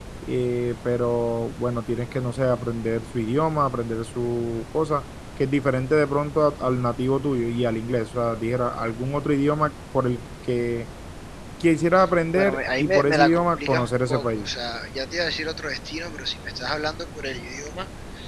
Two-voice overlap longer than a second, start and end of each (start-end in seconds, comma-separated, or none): 12.3-14.5